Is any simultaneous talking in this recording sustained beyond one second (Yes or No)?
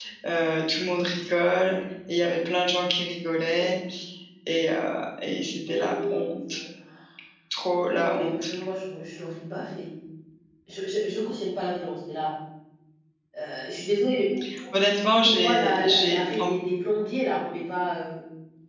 Yes